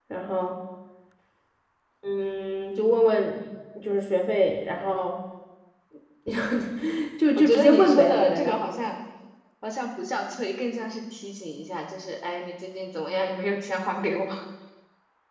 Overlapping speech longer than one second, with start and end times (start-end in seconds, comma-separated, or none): 7.3-8.6